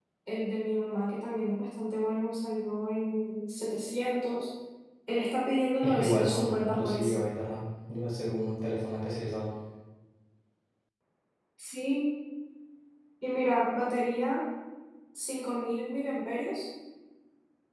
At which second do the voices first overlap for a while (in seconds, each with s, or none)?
5.8 s